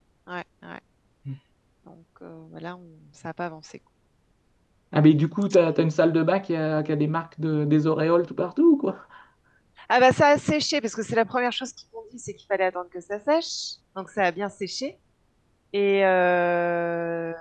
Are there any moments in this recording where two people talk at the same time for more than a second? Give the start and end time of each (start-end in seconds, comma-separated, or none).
none